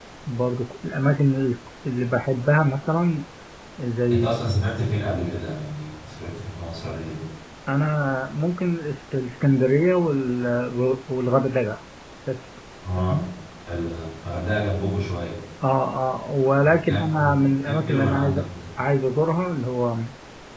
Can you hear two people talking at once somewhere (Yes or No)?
Yes